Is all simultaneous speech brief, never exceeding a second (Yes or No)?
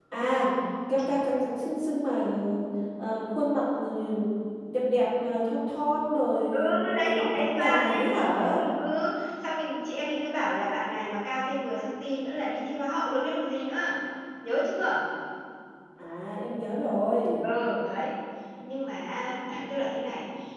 No